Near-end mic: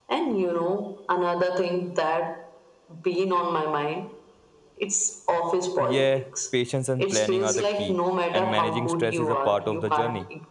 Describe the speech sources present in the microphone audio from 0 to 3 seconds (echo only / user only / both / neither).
echo only